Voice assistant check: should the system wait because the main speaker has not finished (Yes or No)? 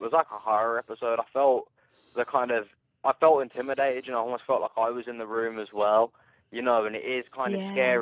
Yes